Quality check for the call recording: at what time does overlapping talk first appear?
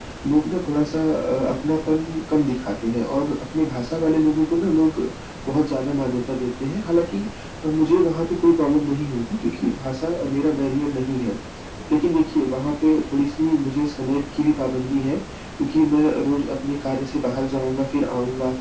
none

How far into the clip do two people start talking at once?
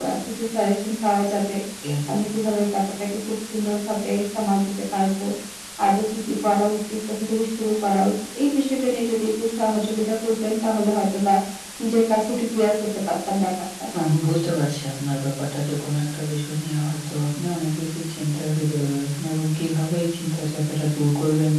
none

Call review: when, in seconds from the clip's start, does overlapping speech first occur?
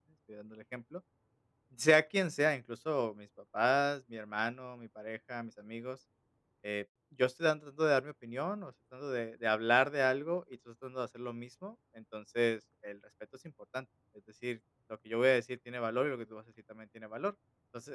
none

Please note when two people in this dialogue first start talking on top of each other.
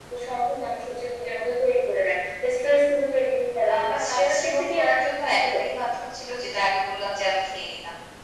4 s

